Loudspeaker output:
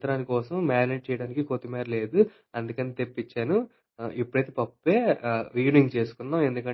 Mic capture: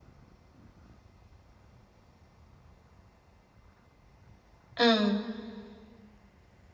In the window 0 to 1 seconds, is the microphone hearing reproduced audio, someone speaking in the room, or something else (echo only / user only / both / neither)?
neither